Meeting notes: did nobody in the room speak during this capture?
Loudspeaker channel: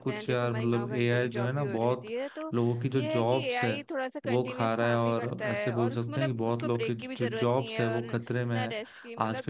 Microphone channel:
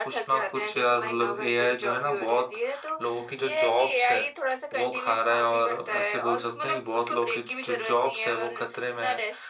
Yes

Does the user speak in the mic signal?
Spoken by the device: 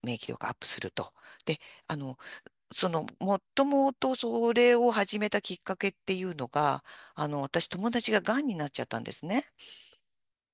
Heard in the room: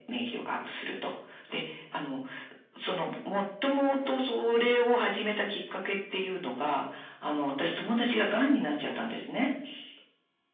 No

